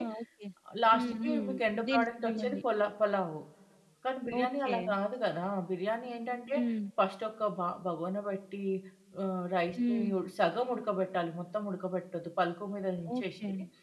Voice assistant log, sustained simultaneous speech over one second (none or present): present